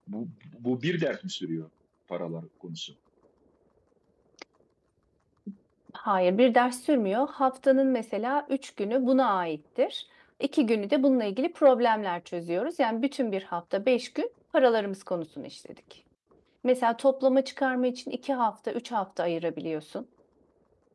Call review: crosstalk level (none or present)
none